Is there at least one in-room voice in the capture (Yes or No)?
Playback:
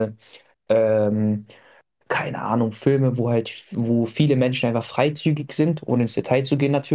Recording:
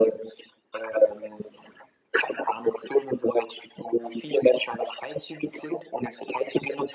No